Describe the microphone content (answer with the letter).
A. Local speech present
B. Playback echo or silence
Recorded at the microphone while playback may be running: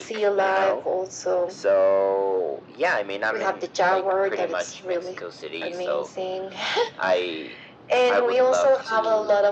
B